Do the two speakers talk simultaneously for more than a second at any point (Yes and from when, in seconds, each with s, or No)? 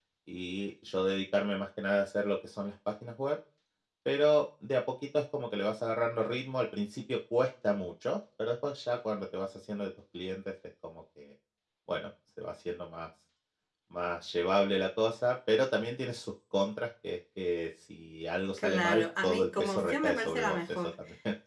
Yes, from 18.6 s